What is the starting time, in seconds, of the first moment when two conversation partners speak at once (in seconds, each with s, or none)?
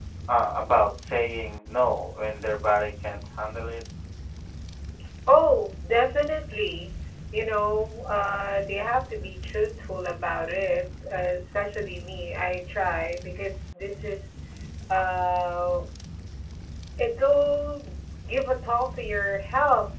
none